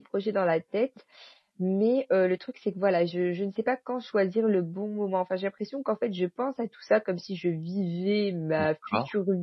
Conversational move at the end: listening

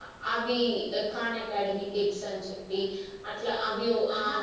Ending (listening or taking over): listening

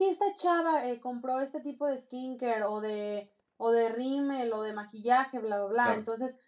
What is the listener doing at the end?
listening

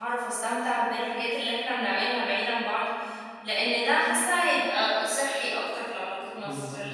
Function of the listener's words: taking over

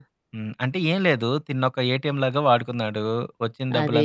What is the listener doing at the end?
listening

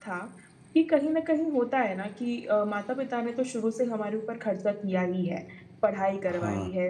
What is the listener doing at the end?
listening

